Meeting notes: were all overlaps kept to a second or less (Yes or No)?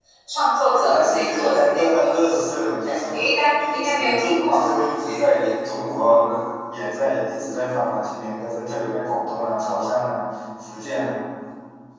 No